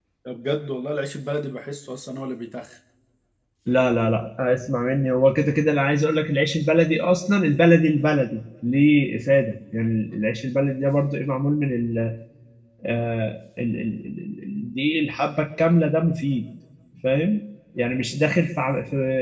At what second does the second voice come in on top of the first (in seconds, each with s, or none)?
none